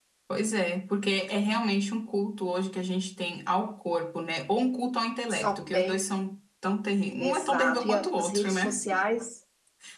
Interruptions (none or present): present